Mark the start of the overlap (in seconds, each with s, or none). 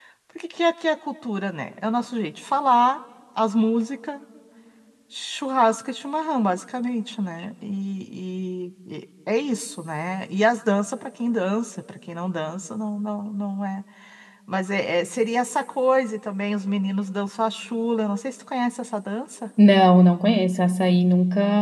none